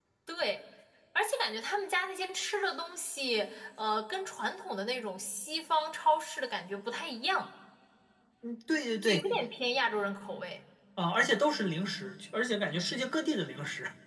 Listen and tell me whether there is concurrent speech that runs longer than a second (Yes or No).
No